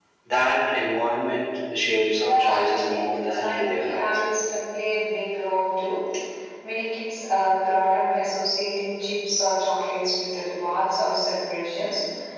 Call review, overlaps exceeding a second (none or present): present